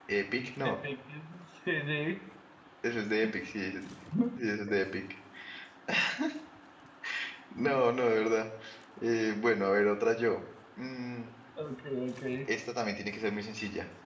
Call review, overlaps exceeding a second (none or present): none